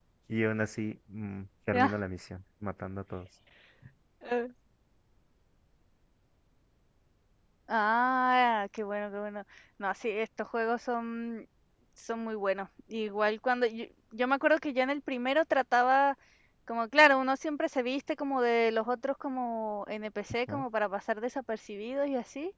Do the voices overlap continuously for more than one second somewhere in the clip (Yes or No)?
No